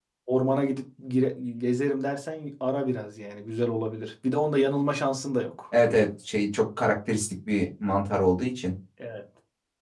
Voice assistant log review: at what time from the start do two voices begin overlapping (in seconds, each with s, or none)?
none